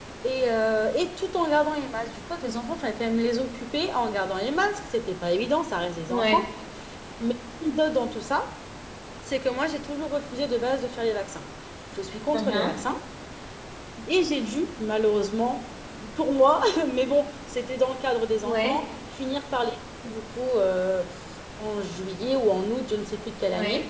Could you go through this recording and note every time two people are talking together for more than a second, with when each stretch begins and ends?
none

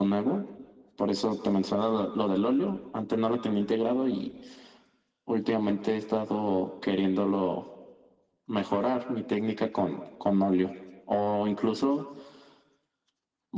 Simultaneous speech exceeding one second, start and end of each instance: none

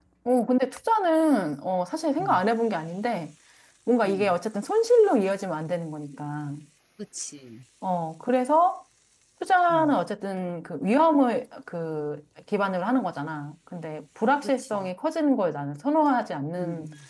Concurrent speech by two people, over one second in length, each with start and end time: none

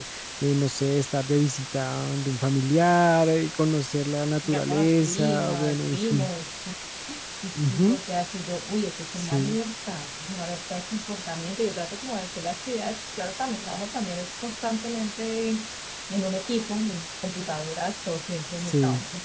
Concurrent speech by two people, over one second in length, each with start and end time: 4.5-6.3

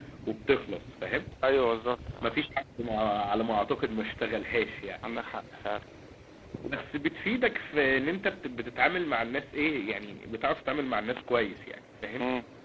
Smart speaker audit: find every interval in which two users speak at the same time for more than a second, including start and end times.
none

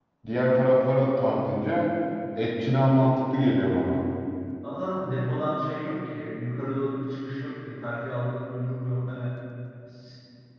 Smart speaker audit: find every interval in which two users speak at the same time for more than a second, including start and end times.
none

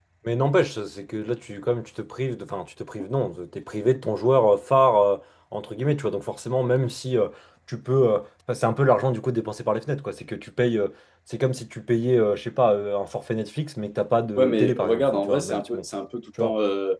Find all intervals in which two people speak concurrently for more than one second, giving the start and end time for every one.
14.4-15.8

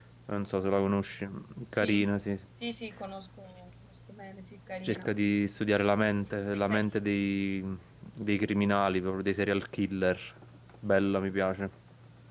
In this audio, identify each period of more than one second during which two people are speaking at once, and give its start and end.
none

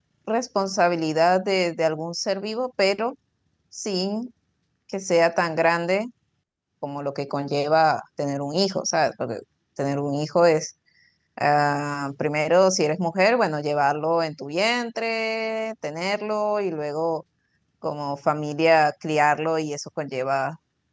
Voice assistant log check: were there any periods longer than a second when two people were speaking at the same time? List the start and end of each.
none

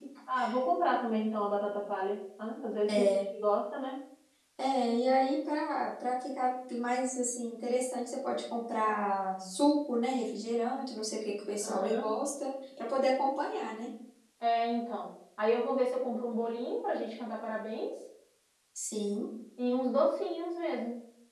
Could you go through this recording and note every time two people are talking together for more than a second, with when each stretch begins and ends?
none

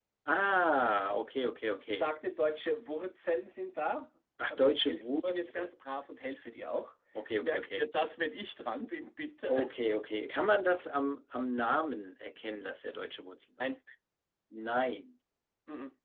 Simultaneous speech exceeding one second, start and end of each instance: 4.5-5.7

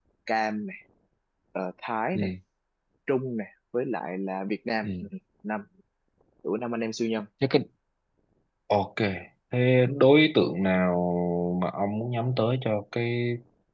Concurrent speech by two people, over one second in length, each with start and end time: none

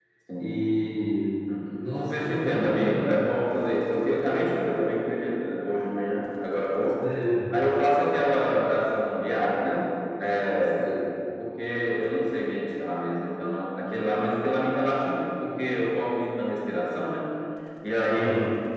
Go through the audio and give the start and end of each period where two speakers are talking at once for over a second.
2.0-3.2

